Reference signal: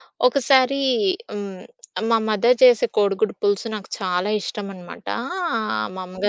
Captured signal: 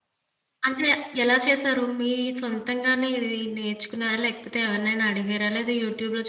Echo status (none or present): none